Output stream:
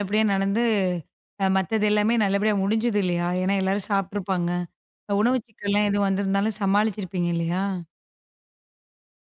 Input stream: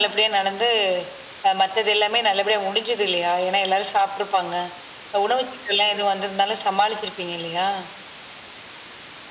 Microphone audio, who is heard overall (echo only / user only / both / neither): echo only